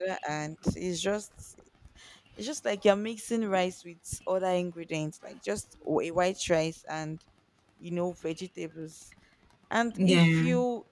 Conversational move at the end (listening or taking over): listening